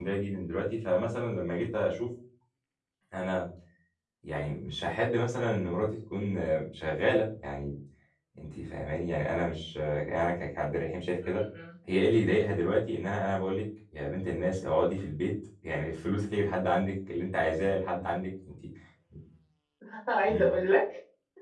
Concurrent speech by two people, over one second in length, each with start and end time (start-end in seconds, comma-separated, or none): none